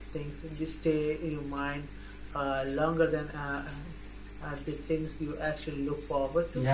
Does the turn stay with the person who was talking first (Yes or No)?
No